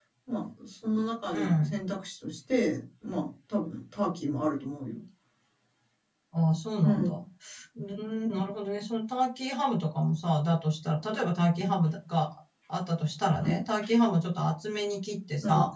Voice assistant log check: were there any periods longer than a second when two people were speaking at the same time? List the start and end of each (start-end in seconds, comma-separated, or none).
none